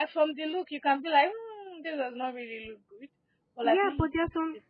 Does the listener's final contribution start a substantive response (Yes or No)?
Yes